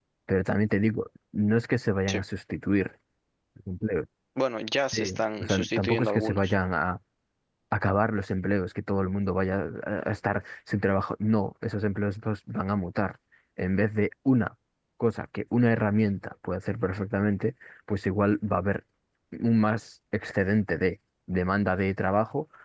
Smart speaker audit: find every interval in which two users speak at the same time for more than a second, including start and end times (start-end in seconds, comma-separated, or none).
4.9-6.5